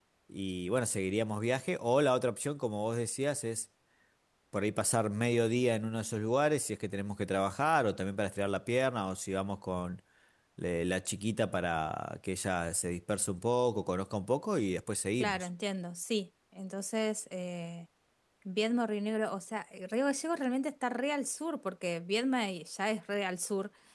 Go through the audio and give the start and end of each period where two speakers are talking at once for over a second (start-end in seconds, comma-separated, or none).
none